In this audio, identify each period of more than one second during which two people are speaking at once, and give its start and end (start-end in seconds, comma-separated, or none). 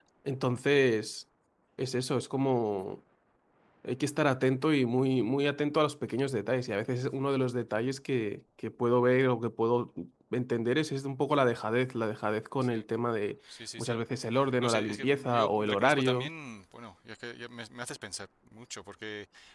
14.6-16.3